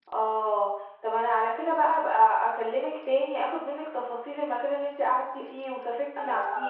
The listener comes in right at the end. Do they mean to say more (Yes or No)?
Yes